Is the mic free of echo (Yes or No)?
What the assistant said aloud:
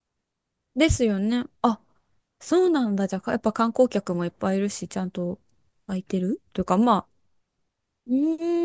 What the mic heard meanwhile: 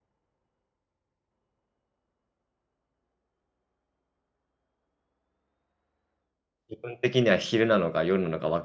Yes